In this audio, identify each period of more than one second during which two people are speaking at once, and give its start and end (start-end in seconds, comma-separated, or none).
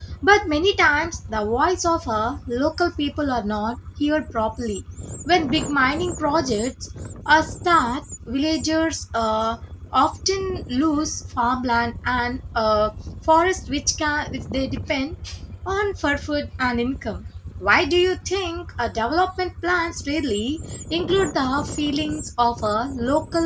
none